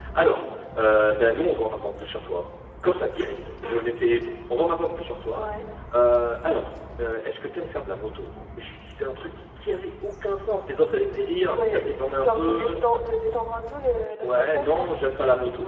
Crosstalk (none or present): present